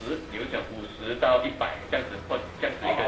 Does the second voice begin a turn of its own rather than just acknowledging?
Yes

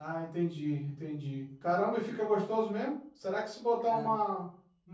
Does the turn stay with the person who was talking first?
Yes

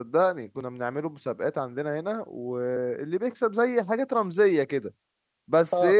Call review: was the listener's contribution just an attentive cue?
No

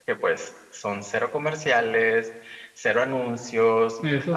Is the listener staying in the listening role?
Yes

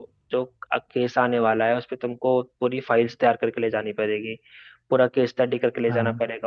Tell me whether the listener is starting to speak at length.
No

